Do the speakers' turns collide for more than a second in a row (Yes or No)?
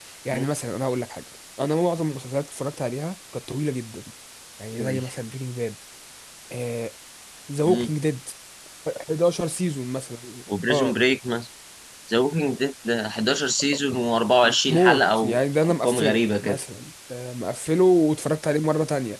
Yes